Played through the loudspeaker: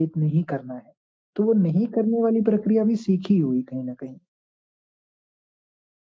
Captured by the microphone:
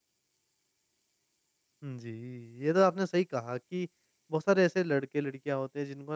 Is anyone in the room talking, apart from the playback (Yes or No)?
Yes